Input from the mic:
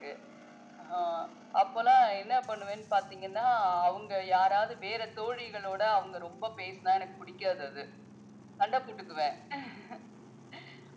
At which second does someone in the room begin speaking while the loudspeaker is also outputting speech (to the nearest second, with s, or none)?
none